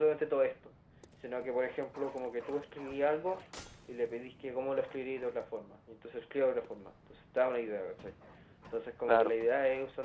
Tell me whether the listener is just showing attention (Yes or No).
Yes